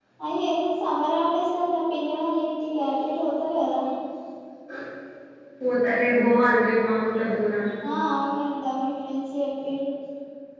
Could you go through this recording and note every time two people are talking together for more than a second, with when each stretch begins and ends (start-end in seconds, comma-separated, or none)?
none